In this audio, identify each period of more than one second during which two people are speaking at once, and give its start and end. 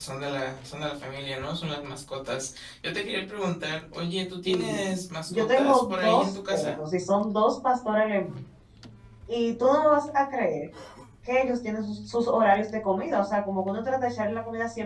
5.3-6.8

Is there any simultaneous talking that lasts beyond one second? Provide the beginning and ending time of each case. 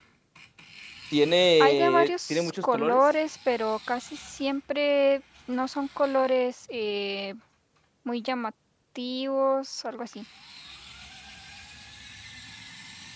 1.6-3.0

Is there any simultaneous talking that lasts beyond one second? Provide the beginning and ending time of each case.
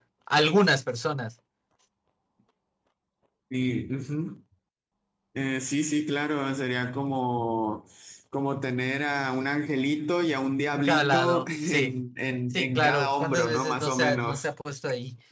10.7-12.0, 12.5-14.5

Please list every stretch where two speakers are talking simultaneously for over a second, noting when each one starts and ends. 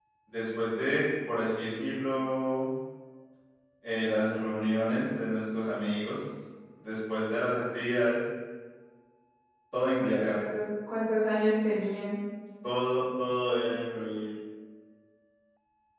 none

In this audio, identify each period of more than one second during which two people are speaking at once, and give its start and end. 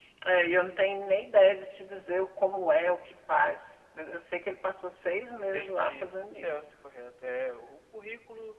5.4-6.6

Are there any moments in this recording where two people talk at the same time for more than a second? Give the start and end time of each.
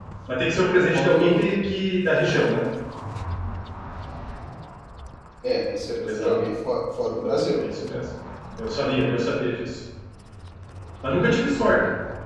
none

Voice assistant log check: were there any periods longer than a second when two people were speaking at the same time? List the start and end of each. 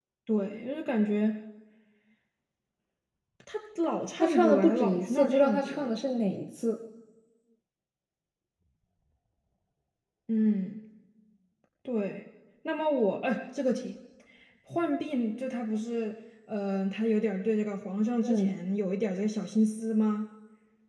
4.2-5.9

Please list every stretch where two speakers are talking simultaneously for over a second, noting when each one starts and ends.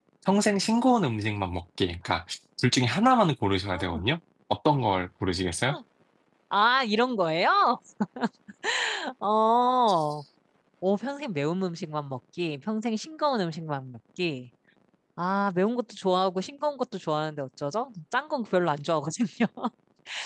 none

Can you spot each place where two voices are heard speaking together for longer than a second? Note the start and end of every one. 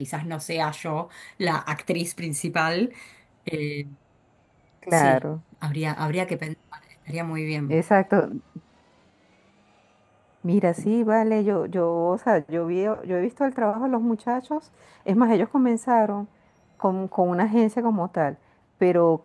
none

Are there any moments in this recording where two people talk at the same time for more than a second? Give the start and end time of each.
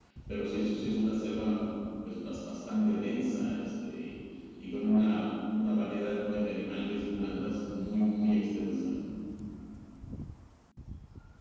none

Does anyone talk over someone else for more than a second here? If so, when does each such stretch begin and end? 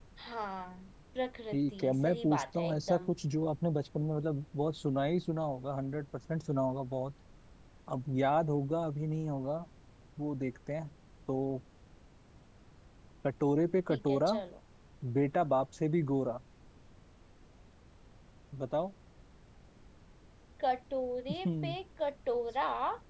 1.5-3.1

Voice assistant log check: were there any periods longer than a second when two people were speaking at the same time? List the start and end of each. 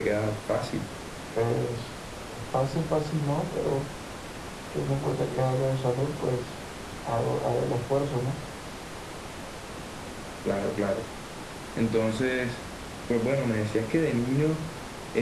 none

